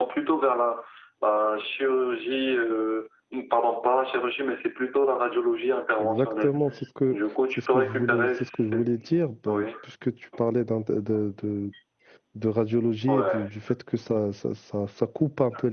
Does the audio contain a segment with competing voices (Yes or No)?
Yes